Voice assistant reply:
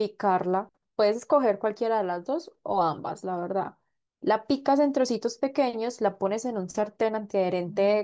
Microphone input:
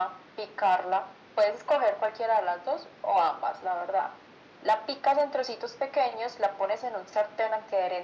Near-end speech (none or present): none